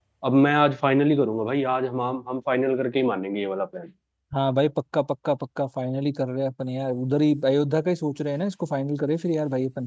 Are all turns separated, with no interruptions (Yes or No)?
Yes